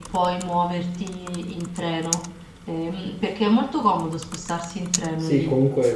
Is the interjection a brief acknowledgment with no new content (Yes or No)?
No